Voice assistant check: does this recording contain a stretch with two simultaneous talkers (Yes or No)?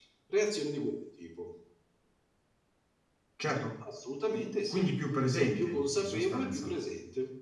Yes